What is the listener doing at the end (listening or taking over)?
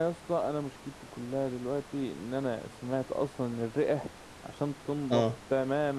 listening